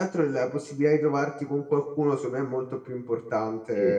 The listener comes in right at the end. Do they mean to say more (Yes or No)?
Yes